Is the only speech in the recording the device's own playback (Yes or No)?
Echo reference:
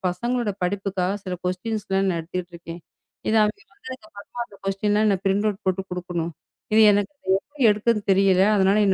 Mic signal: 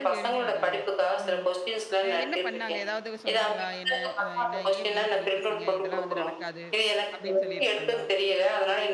No